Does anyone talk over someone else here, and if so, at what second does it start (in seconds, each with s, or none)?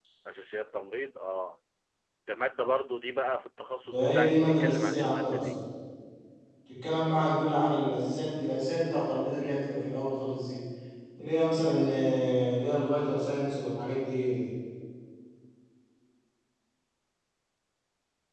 3.9 s